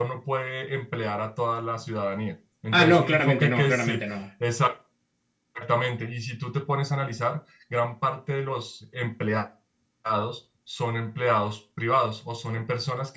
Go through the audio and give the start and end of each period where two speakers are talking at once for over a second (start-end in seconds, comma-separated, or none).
2.7-4.0